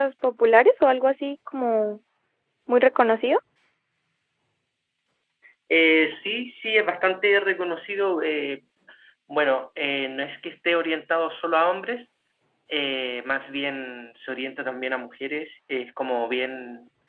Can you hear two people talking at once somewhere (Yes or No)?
No